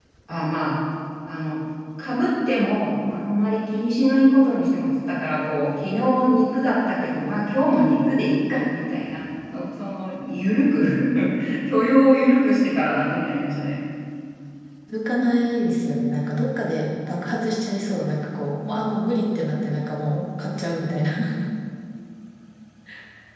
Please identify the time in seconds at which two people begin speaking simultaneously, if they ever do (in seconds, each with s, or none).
none